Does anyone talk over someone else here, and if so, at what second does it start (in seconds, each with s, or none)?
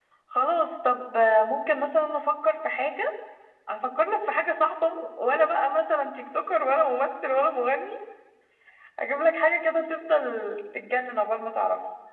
none